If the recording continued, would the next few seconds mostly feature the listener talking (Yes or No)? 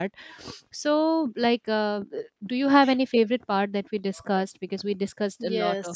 Yes